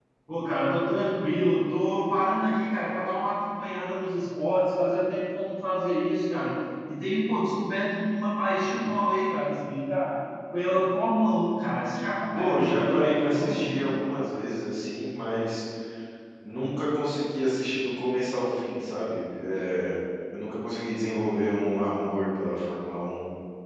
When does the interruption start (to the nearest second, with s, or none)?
12 s